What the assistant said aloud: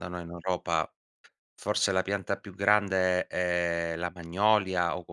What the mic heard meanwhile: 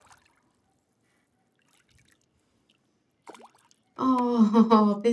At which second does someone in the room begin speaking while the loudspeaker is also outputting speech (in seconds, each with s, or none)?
4.0 s